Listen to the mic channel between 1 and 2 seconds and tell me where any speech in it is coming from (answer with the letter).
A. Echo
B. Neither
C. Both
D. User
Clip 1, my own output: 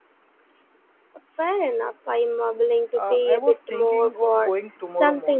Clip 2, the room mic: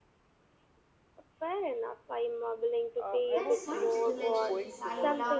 A